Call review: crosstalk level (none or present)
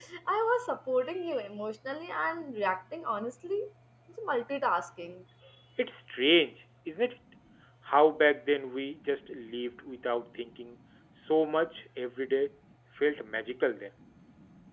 none